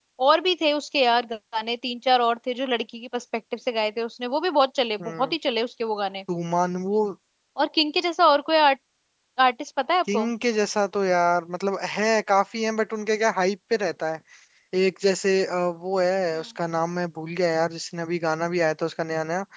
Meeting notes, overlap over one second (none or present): none